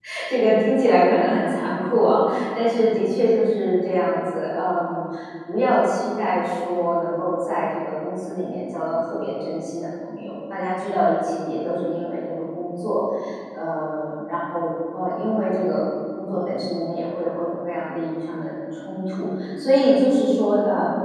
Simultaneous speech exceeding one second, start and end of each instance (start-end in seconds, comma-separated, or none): none